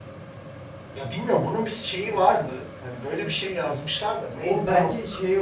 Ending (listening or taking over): taking over